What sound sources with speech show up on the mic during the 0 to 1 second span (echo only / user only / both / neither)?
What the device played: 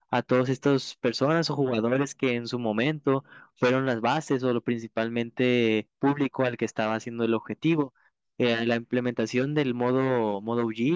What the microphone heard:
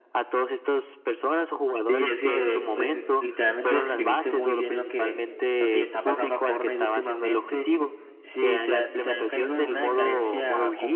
echo only